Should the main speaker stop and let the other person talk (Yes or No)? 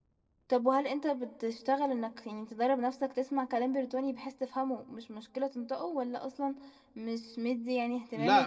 Yes